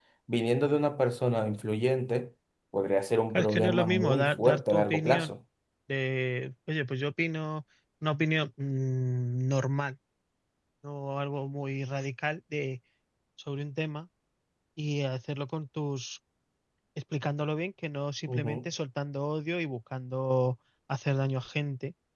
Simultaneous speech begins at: 3.3 s

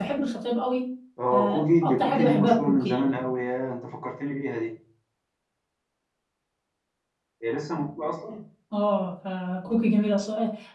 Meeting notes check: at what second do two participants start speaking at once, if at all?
1.3 s

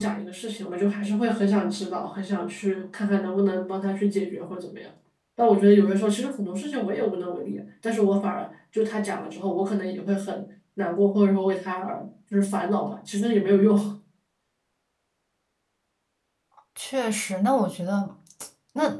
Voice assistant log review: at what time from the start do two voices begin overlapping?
none

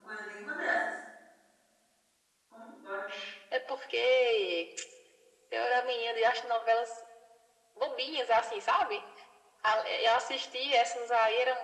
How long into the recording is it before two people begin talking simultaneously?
none

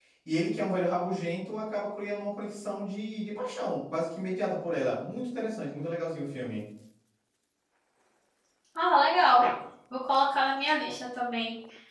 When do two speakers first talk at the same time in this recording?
none

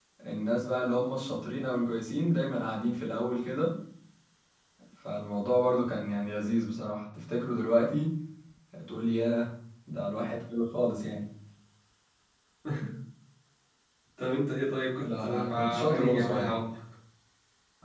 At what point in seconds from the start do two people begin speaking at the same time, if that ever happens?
15.0 s

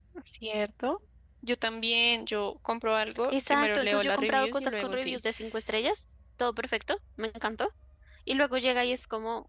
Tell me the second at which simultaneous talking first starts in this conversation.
3.1 s

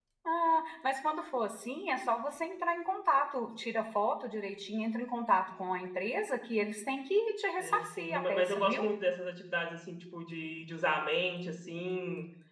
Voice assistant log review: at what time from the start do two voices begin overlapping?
7.6 s

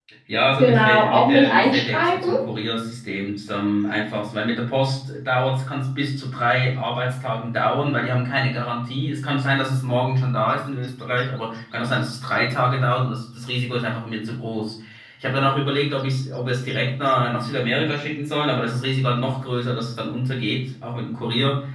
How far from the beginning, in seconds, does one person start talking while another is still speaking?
0.6 s

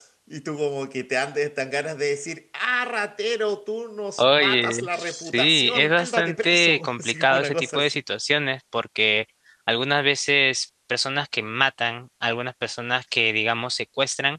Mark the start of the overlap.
4.2 s

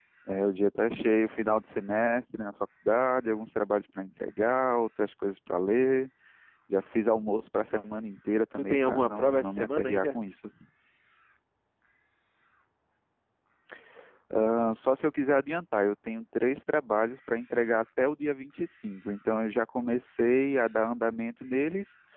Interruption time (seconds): 8.6 s

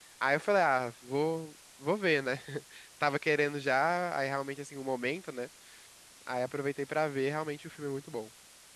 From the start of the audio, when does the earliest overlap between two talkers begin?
none

